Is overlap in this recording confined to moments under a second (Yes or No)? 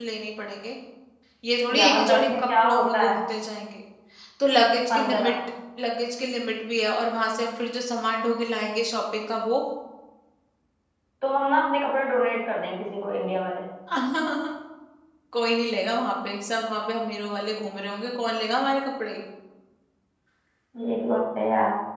No